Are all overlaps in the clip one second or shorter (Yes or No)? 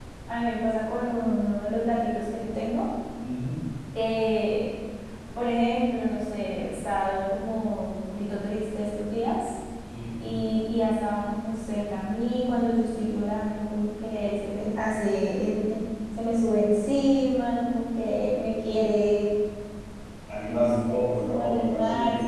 No